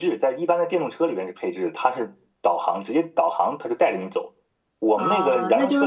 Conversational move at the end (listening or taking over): taking over